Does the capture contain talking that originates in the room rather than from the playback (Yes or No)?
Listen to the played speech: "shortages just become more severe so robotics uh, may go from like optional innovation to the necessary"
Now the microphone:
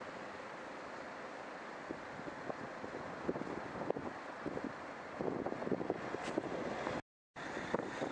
No